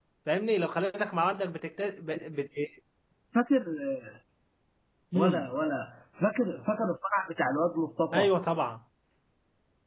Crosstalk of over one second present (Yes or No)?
No